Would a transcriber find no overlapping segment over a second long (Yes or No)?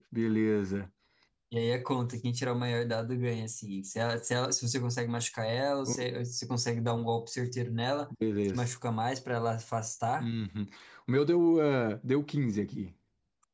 Yes